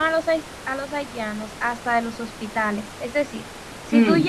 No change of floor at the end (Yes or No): Yes